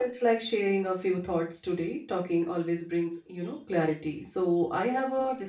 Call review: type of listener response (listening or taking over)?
listening